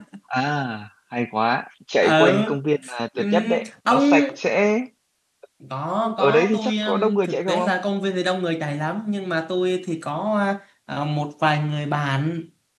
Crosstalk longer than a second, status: present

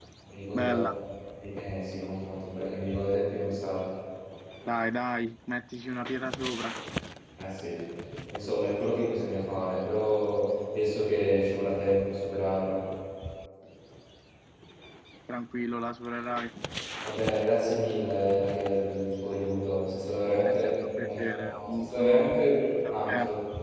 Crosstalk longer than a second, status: present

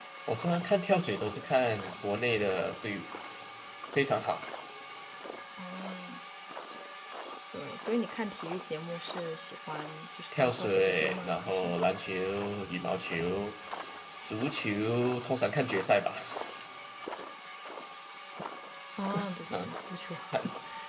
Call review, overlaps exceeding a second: present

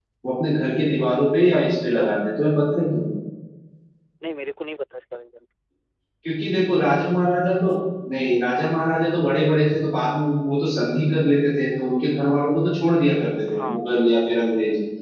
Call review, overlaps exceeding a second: none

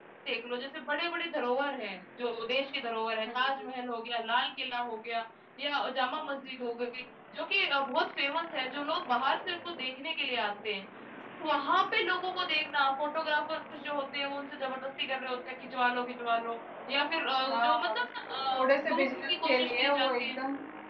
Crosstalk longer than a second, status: present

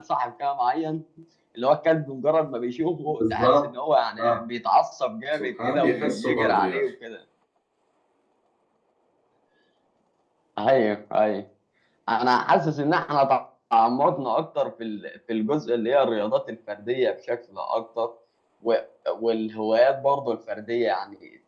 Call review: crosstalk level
present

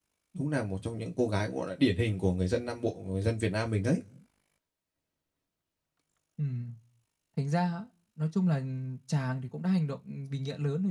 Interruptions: none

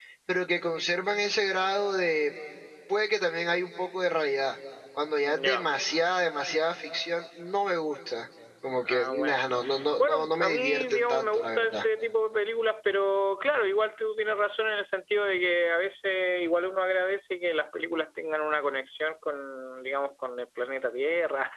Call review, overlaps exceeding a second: present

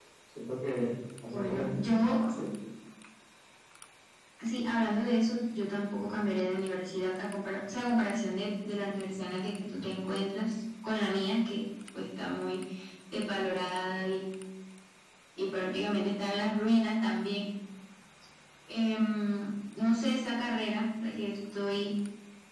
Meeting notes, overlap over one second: none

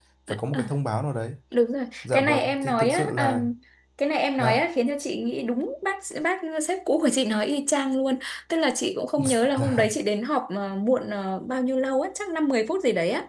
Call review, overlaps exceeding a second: present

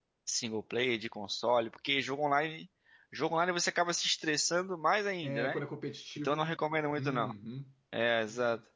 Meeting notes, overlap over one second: none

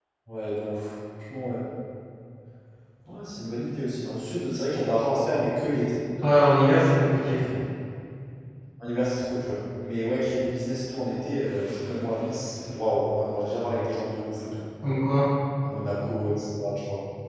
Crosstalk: none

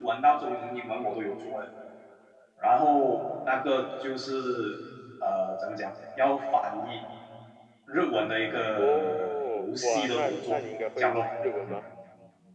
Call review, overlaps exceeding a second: present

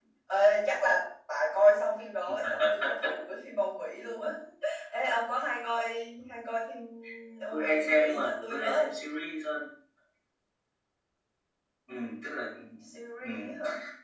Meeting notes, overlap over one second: present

